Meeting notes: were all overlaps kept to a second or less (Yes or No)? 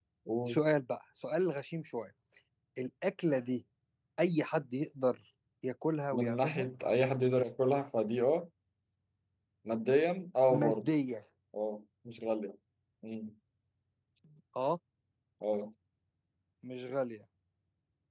Yes